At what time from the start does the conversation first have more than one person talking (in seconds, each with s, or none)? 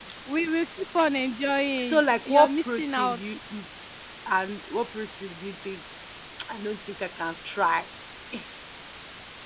1.8 s